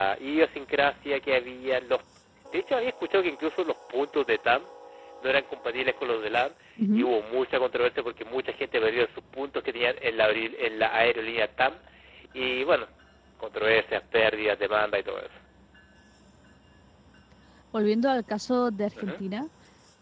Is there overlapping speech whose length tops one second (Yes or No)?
No